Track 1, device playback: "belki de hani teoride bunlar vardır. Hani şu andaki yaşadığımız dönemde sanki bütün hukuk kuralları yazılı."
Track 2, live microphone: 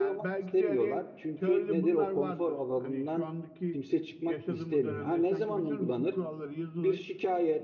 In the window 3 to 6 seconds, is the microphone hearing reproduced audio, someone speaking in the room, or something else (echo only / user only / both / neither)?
both